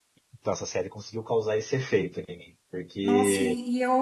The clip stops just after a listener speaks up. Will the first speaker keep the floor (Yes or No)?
No